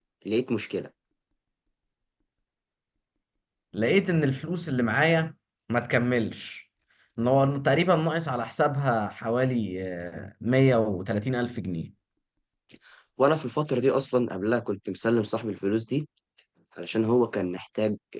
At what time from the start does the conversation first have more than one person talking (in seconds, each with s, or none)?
none